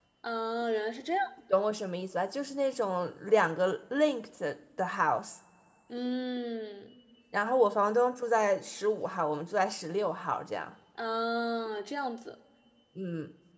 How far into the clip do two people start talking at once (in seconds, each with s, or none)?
none